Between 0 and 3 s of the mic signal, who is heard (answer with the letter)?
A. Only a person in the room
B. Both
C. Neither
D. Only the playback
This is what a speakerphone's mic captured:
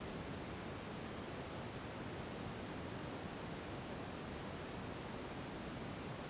C